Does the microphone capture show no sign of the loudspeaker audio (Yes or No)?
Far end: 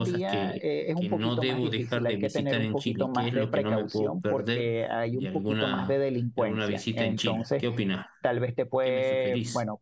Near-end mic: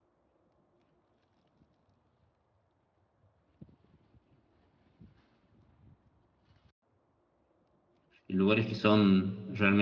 Yes